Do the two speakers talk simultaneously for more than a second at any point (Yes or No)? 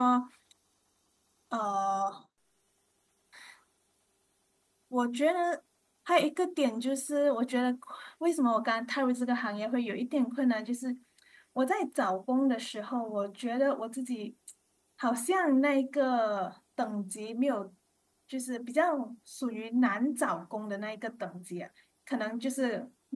No